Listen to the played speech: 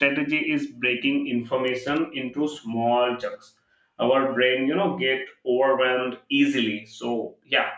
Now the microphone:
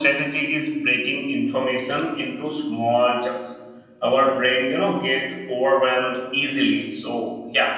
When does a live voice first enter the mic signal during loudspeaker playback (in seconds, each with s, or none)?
none